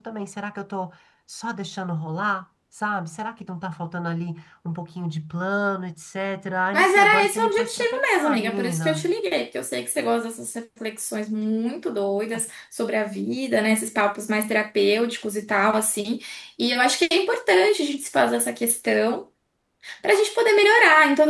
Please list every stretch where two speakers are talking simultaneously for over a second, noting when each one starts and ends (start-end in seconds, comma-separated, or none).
6.7-9.1